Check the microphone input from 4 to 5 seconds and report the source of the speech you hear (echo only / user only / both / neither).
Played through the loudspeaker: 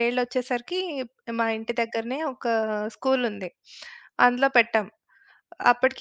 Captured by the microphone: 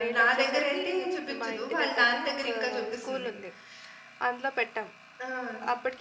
echo only